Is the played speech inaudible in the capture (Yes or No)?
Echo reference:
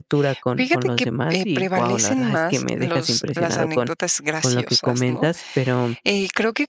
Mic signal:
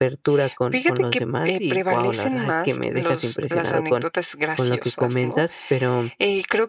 No